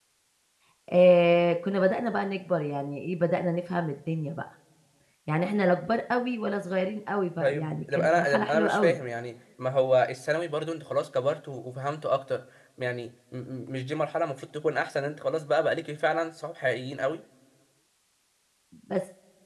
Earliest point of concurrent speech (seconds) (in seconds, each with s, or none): 7.4 s